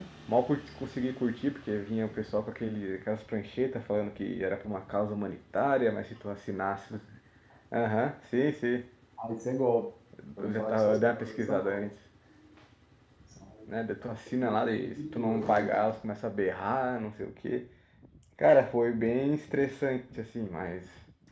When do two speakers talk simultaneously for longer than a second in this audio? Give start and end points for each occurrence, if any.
10.4-11.9, 14.4-15.9

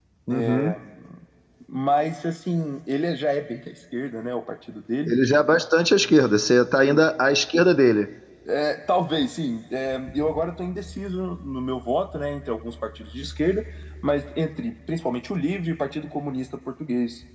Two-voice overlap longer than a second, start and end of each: none

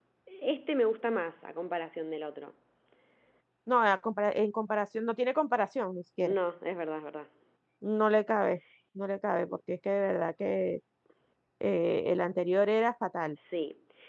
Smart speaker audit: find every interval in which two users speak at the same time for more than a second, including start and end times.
none

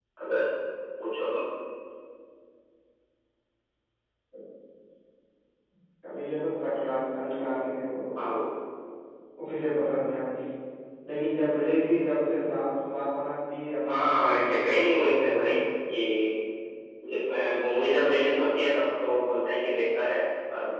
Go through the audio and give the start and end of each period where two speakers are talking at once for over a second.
13.9-15.5

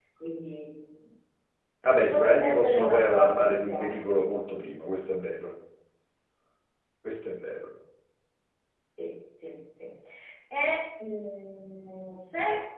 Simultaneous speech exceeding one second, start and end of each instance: 2.1-4.0

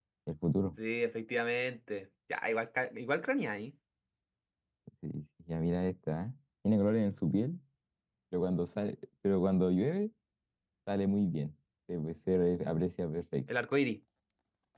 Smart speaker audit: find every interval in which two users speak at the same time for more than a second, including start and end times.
none

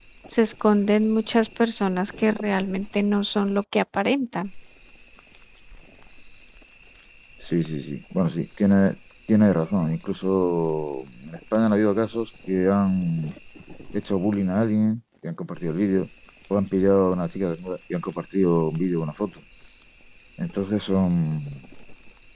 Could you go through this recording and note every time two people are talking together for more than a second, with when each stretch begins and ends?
none

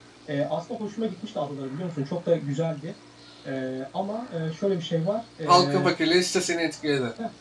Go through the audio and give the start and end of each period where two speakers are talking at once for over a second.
none

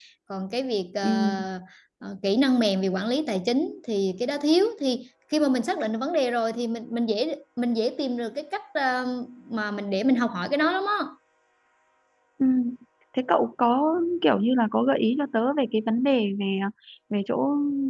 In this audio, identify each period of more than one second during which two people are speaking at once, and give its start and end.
none

